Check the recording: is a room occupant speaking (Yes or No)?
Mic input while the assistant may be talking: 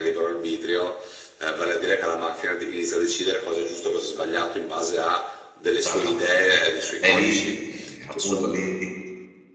Yes